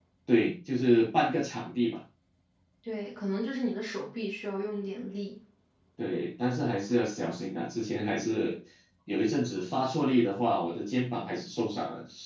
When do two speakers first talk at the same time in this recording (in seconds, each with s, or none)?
none